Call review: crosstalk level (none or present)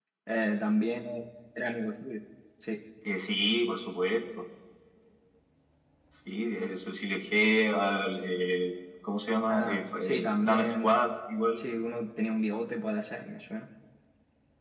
present